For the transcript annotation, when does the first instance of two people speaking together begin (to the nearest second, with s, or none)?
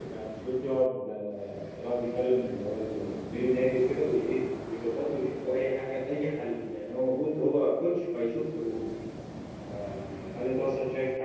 none